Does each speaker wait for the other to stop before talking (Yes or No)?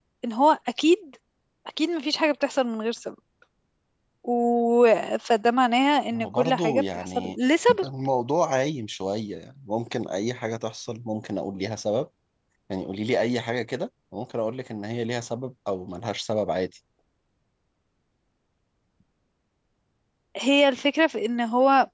No